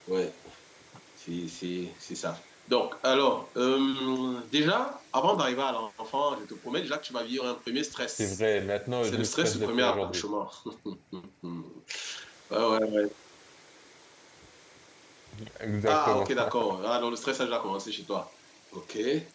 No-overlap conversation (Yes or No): No